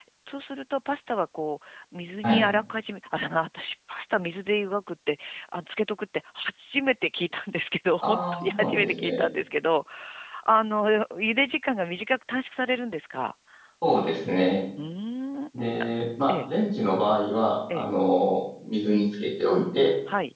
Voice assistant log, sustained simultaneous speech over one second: present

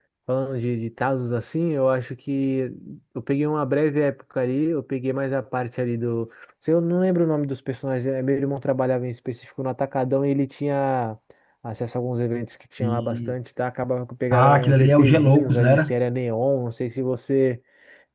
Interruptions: present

